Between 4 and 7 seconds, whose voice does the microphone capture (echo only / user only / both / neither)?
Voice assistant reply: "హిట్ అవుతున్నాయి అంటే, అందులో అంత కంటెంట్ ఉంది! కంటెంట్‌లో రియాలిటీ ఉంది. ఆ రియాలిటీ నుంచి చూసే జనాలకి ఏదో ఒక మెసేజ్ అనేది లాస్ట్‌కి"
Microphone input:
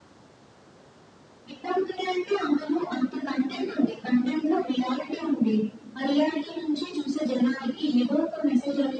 echo only